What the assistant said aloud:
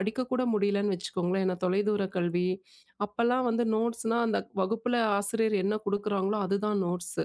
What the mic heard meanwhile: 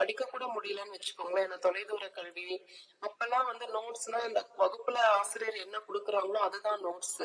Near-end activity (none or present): none